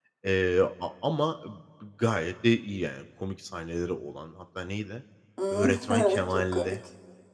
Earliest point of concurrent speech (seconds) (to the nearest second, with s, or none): 6 s